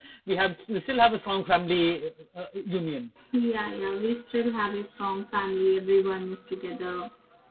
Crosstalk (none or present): none